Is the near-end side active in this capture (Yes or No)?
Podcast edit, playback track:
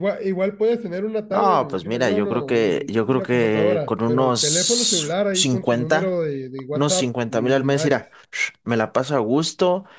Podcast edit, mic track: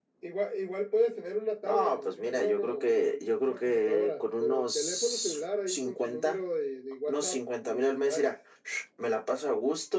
No